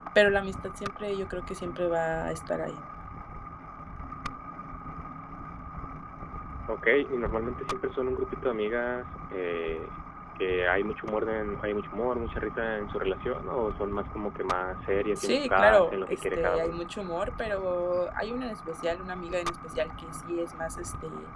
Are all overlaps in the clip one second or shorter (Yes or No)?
No